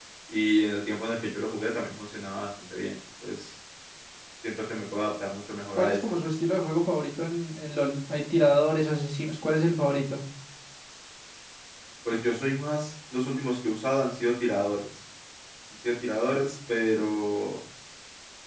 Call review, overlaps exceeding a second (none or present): none